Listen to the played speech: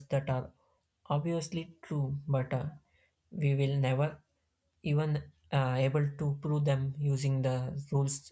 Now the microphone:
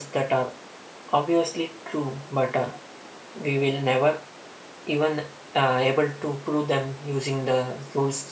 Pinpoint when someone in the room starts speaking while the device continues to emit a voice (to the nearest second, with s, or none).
none